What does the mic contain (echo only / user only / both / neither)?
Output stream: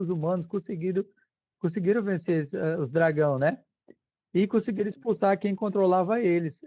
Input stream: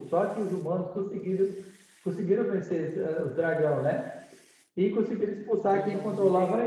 both